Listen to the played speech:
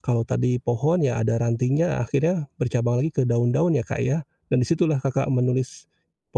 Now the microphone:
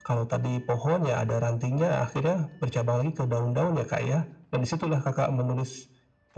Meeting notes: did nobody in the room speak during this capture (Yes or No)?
Yes